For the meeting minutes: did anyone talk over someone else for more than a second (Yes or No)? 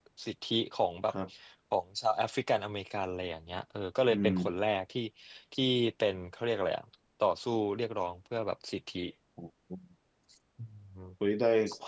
No